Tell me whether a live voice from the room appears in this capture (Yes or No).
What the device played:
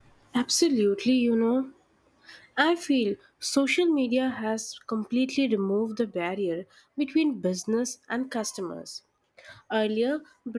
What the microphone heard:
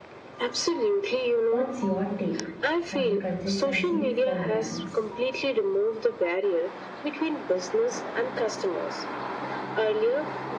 Yes